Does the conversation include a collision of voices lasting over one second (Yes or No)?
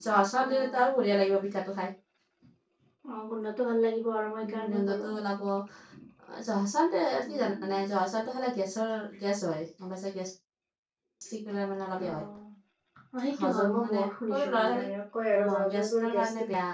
Yes